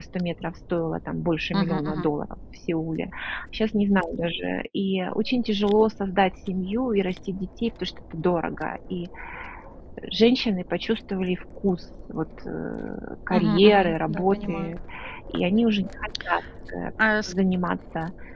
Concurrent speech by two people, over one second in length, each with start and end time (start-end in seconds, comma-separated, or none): 13.3-14.7